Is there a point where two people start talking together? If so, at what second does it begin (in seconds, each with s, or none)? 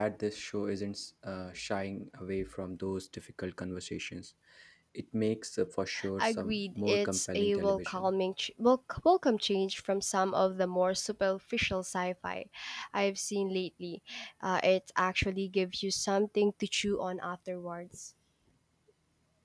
6.0 s